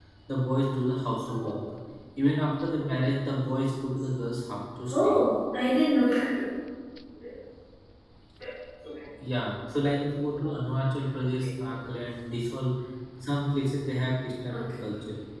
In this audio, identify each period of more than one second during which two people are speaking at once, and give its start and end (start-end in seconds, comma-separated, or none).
none